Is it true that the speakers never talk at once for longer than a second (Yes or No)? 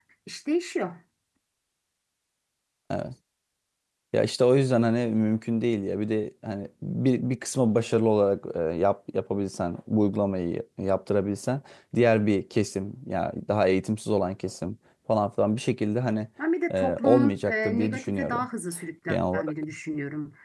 No